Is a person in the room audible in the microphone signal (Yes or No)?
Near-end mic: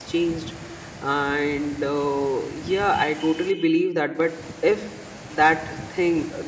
Yes